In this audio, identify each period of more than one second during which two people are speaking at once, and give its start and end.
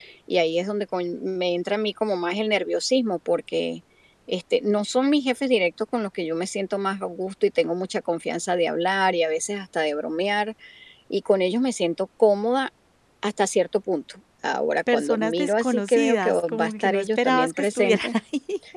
14.9-18.1

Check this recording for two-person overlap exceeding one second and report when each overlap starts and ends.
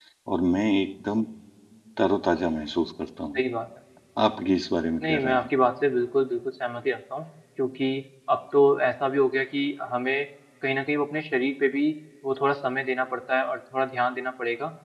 none

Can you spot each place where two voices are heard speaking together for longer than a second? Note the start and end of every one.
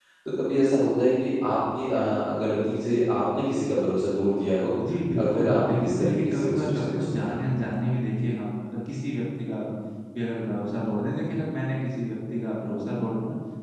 5.2-7.5

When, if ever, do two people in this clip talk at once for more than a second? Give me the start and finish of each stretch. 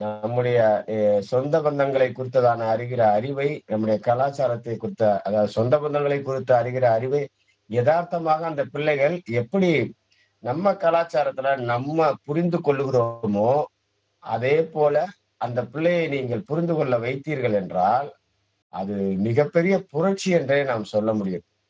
none

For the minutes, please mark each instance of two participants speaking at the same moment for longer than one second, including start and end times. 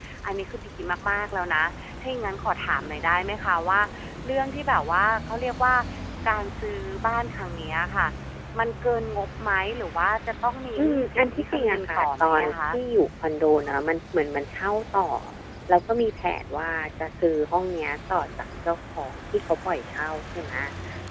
10.8-12.5

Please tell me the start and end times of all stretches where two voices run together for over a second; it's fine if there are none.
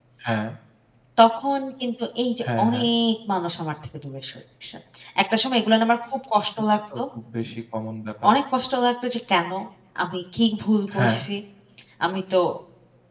none

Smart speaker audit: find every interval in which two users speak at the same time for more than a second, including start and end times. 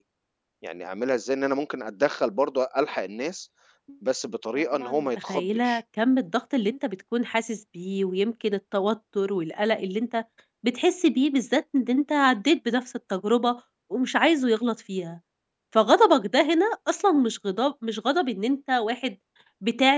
4.6-5.8

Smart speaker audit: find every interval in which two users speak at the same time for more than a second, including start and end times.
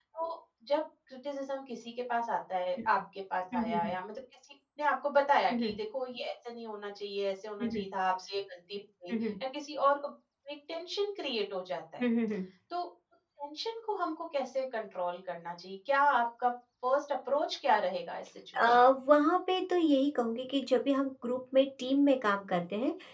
none

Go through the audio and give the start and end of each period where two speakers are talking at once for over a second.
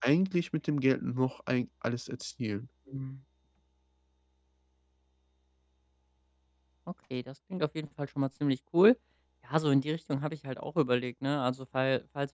none

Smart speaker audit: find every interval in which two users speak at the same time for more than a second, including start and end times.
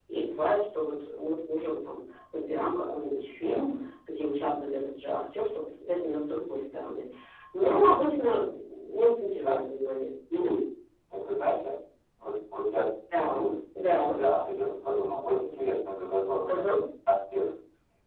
none

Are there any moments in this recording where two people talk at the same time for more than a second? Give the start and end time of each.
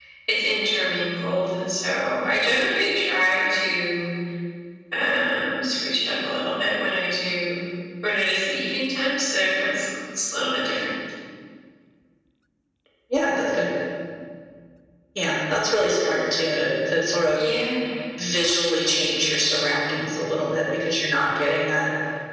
none

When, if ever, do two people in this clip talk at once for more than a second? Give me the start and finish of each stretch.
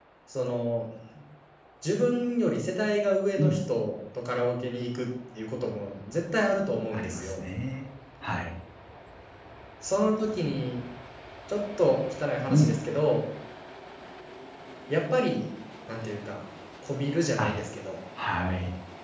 none

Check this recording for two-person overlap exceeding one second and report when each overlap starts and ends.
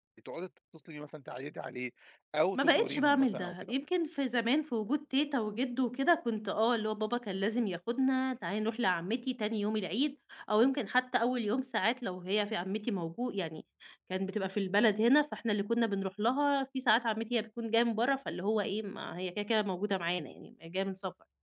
2.6-3.8

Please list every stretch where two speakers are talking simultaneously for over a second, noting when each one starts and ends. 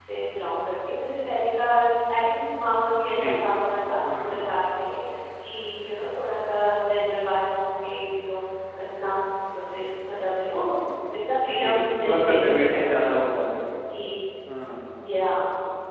11.4-13.3

